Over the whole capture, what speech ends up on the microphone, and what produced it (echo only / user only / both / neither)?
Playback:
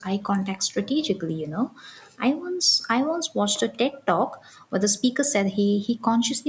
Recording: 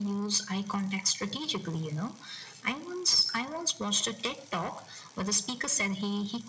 echo only